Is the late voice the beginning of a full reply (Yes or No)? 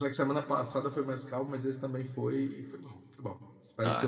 Yes